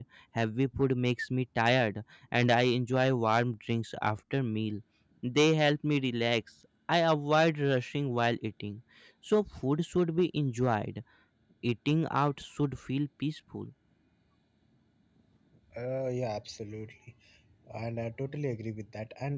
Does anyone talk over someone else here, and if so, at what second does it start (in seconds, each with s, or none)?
none